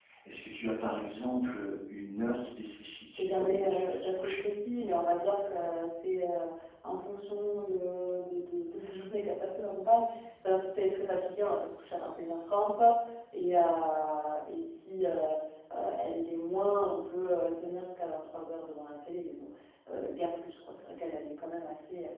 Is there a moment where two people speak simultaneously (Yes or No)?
Yes